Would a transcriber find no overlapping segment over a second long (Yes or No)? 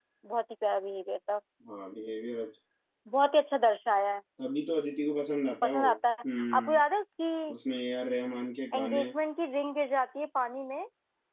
Yes